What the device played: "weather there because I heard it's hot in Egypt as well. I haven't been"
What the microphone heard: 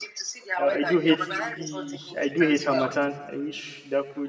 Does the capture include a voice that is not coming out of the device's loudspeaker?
Yes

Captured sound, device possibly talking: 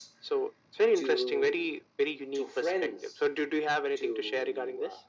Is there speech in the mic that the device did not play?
No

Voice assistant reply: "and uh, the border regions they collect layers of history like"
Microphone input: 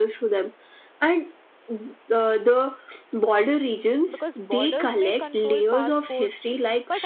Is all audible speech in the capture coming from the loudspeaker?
No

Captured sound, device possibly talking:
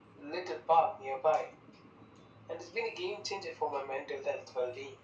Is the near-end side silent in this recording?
Yes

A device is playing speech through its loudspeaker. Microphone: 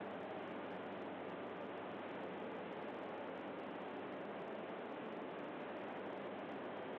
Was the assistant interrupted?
No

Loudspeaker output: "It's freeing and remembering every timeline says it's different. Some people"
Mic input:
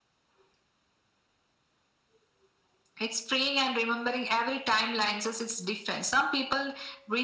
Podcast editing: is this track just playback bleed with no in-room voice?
Yes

